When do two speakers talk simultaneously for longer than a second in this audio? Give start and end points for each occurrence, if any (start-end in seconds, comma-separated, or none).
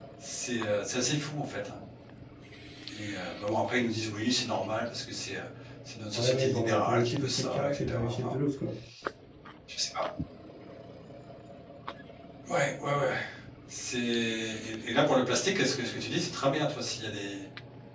6.1-8.3